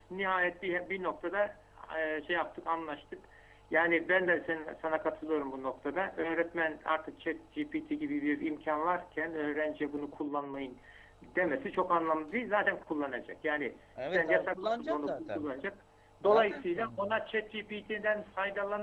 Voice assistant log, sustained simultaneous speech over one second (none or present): present